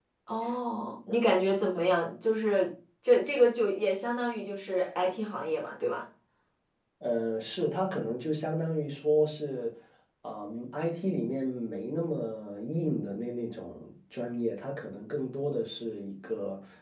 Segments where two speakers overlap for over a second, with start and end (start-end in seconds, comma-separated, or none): none